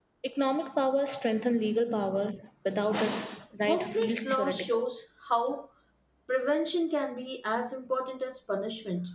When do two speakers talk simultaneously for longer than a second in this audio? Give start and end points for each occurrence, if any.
3.6-4.8

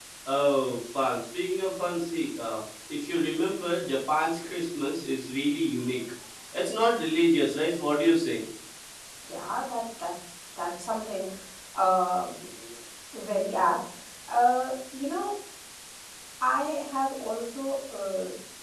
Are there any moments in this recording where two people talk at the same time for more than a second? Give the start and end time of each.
none

